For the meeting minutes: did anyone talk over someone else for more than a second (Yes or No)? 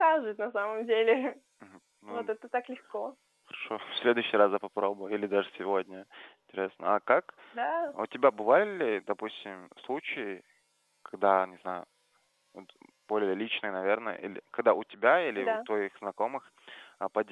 No